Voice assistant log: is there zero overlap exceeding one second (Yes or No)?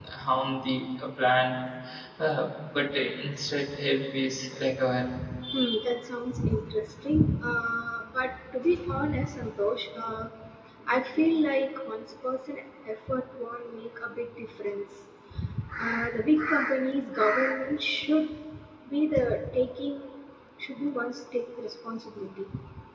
Yes